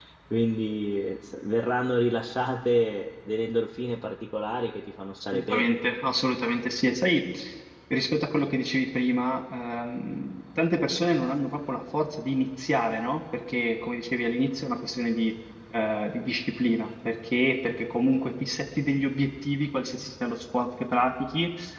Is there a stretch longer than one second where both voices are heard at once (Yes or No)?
No